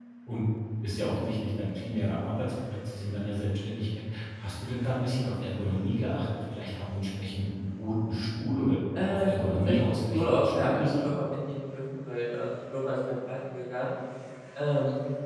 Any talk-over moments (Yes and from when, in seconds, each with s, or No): Yes, from 8.9 s